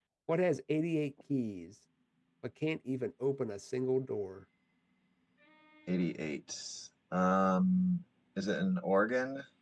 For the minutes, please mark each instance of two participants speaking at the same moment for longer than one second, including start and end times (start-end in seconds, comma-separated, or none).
none